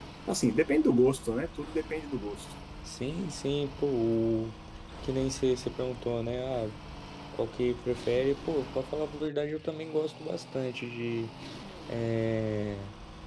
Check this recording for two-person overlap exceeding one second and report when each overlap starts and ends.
none

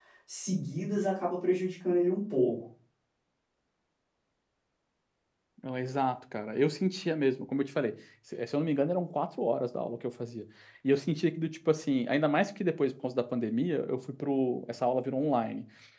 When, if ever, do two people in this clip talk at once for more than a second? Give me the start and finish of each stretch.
none

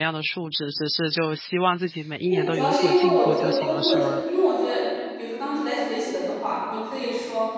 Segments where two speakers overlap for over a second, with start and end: 2.2-4.2

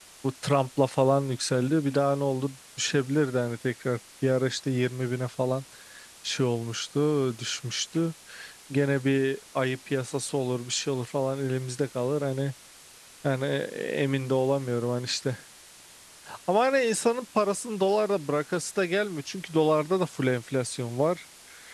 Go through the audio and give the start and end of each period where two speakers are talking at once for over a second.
none

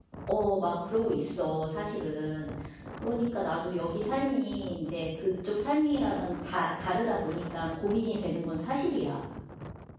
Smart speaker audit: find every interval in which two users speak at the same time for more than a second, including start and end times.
none

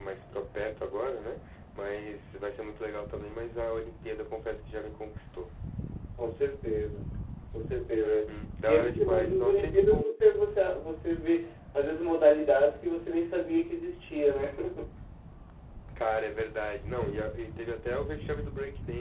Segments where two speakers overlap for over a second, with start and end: 8.7-10.1

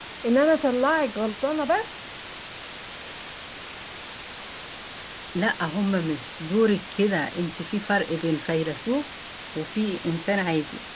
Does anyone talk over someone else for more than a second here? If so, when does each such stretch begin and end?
none

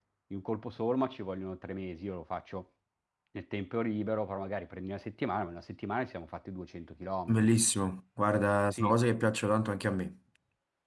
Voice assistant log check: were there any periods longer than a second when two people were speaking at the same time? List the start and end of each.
none

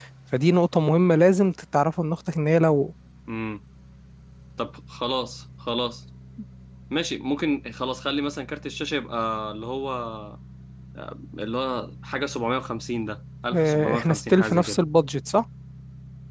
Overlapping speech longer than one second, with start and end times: 13.5-14.8

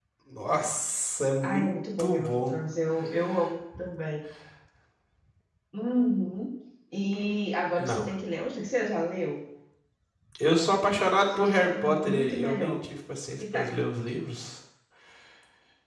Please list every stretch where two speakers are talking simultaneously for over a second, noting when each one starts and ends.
11.4-12.8

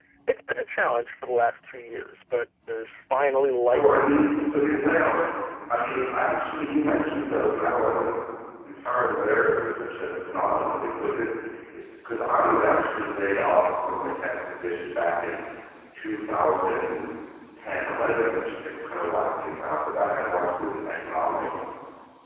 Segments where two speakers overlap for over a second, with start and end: 3.6-5.0

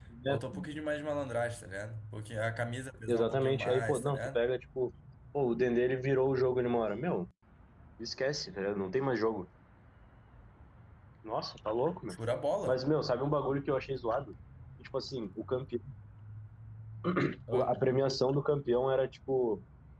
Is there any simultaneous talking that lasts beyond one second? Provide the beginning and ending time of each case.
3.1-4.4

